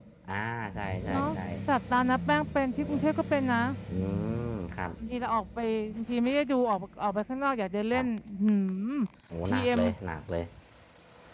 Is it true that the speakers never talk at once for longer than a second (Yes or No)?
Yes